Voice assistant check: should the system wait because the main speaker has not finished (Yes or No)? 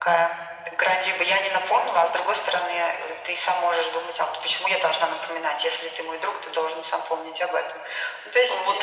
No